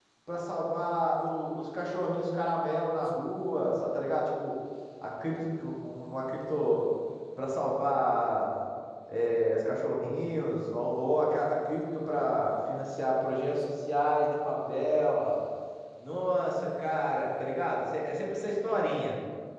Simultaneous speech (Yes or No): No